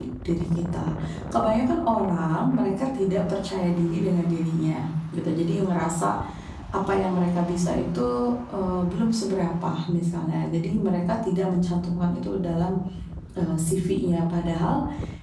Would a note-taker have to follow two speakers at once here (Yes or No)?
No